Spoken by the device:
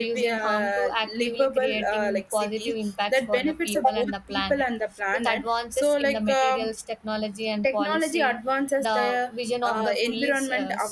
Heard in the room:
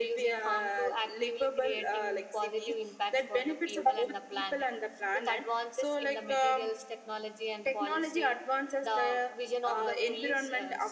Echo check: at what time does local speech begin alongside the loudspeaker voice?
none

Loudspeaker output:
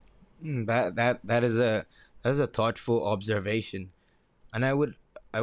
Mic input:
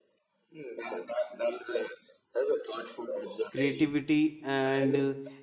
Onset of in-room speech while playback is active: 3.5 s

